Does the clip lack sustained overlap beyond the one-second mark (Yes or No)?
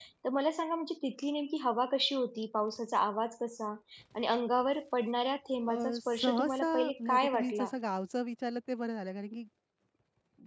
No